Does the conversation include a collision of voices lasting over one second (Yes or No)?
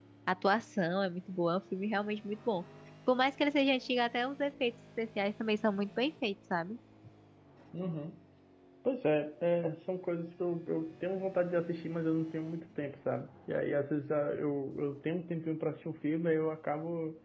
No